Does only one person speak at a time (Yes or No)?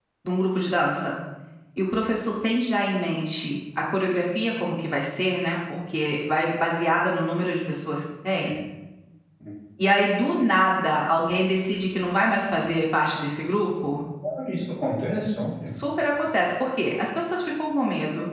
Yes